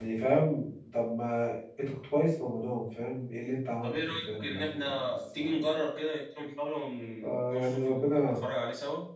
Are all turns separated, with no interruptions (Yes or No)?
No